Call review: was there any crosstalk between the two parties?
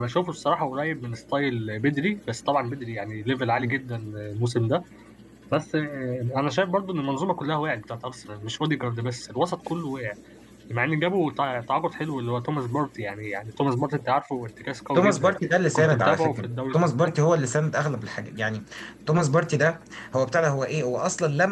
Yes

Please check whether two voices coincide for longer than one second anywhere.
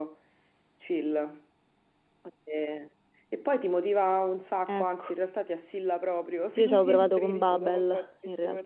Yes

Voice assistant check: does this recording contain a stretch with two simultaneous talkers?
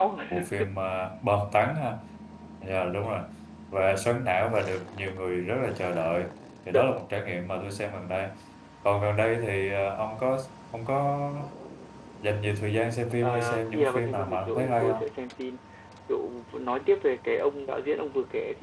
Yes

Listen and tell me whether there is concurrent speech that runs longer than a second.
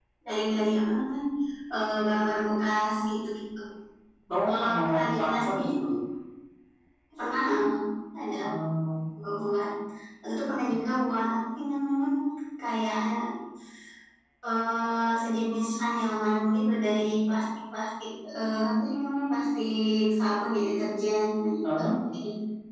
Yes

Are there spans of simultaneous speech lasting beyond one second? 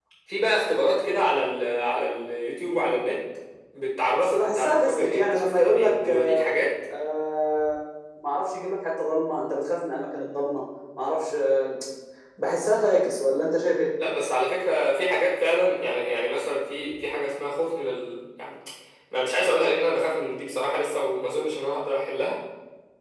Yes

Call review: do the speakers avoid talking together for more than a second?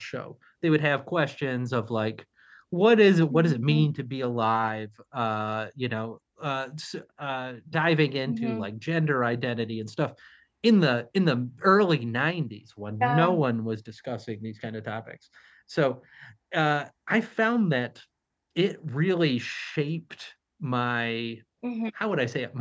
Yes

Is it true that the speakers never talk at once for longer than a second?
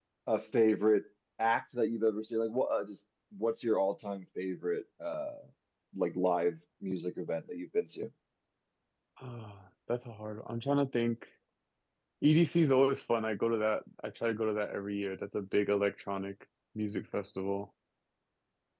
Yes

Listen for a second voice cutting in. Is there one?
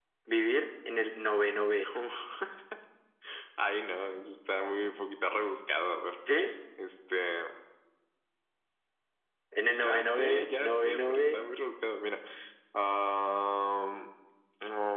Yes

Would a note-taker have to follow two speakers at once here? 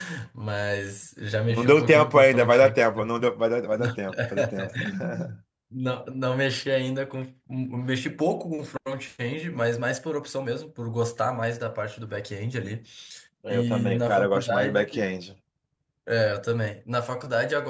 Yes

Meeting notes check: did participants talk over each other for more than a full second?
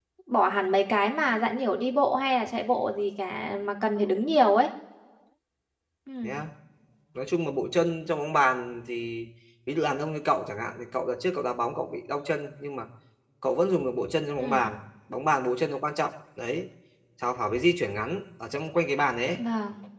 No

